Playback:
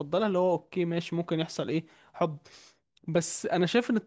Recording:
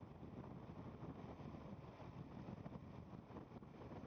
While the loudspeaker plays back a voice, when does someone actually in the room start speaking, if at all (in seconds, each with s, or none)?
none